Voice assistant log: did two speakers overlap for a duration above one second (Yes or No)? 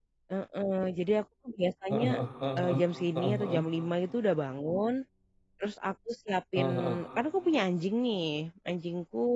No